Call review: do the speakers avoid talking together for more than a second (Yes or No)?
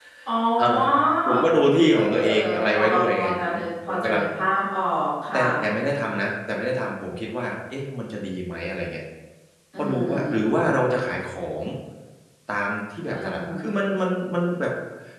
No